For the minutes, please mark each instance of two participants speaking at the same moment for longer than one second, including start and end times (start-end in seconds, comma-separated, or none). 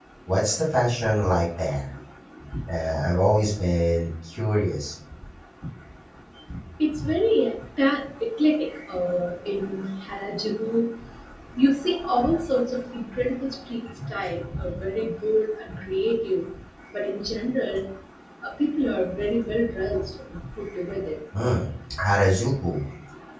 none